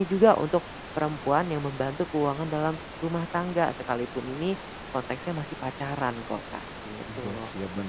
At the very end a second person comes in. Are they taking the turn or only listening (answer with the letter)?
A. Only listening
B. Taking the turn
B